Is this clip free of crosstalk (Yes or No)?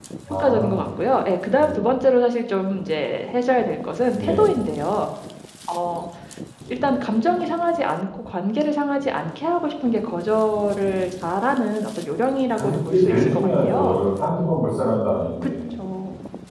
No